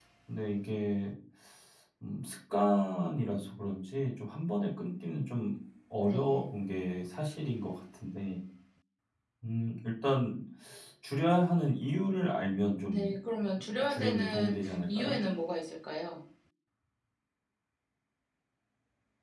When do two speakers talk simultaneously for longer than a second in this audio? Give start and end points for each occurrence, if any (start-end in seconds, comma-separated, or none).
13.6-15.2